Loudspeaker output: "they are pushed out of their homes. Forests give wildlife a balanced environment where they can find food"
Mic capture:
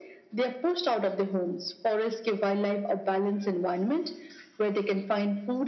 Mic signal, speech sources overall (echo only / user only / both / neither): echo only